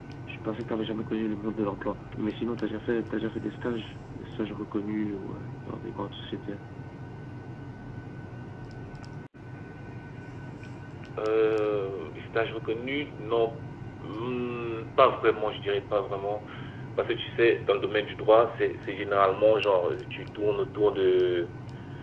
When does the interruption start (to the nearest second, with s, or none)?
none